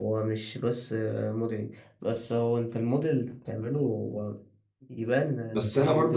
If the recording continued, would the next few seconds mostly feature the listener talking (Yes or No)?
Yes